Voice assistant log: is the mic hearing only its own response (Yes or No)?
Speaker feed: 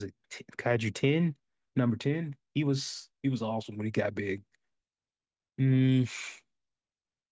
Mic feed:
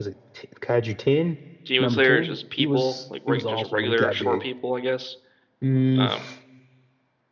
No